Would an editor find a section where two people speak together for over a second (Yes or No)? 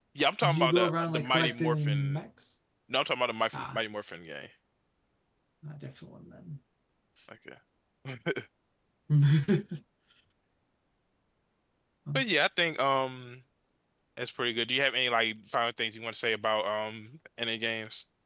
Yes